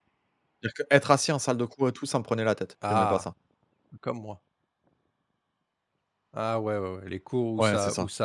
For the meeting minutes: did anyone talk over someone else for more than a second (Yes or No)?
No